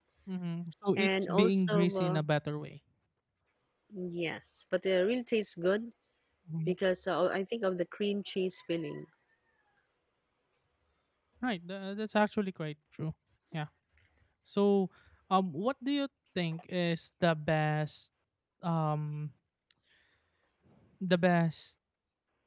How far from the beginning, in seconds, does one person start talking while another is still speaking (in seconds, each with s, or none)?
0.9 s